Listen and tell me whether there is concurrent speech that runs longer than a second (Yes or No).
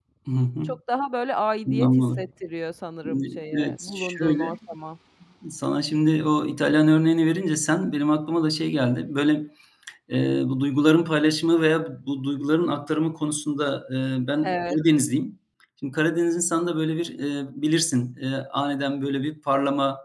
Yes